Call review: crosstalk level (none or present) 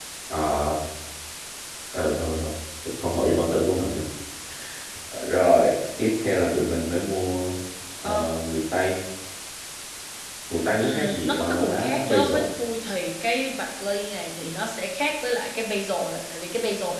present